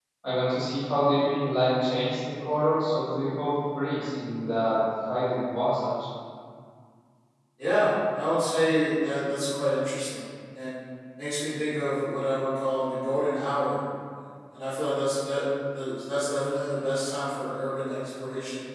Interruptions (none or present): none